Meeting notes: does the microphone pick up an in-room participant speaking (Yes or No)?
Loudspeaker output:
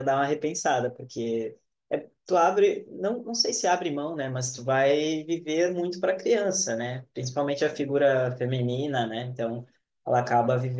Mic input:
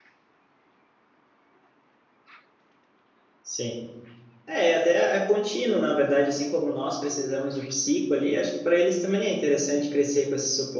Yes